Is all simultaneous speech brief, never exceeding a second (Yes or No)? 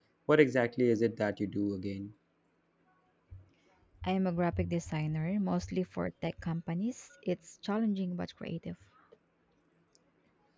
Yes